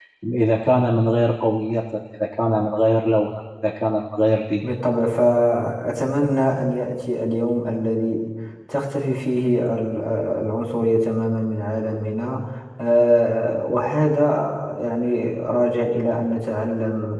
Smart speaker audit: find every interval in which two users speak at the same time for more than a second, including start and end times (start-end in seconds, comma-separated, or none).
none